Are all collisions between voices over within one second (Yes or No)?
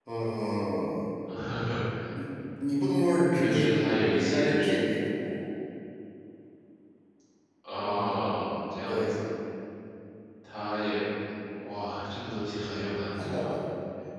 No